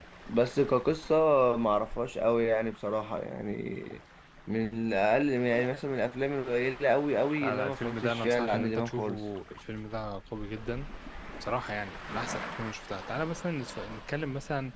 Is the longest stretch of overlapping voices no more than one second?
No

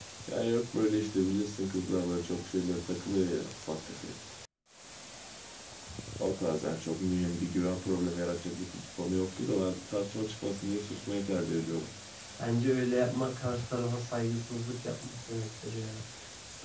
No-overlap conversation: Yes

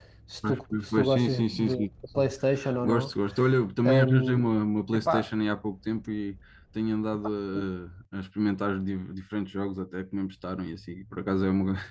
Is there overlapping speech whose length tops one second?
Yes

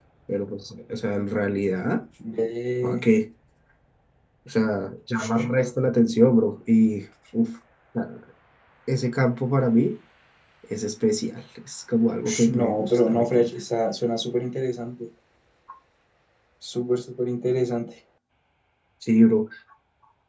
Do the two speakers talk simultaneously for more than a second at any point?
Yes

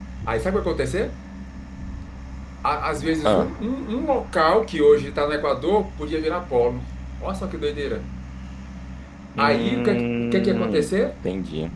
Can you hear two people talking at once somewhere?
Yes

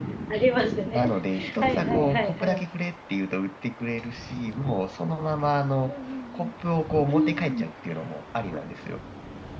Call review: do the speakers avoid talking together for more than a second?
No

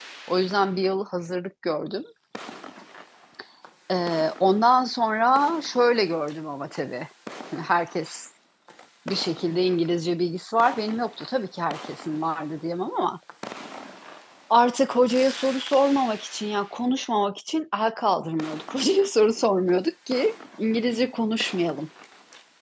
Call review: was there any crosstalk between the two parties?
No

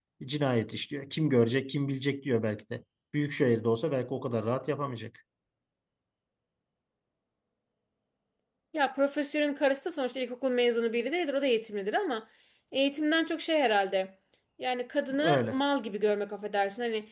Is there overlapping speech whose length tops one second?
No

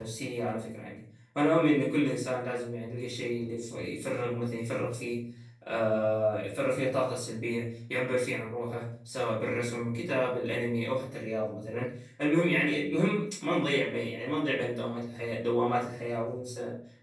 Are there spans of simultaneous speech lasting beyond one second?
No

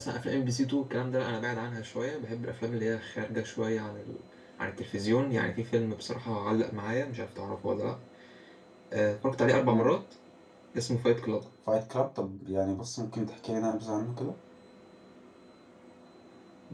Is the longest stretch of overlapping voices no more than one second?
Yes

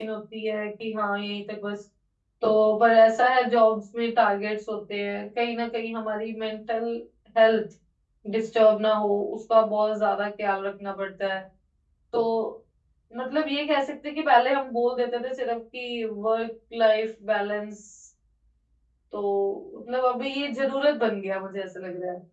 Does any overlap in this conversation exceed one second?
No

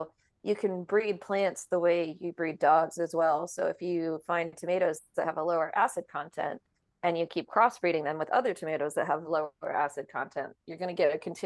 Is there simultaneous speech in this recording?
No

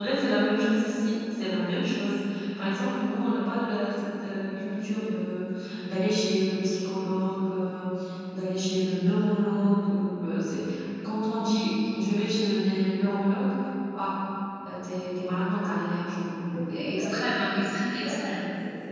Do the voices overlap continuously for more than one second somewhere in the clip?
Yes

